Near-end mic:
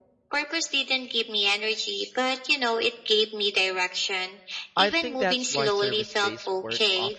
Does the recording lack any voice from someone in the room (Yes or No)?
No